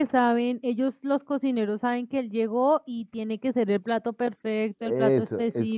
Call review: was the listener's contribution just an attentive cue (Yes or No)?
No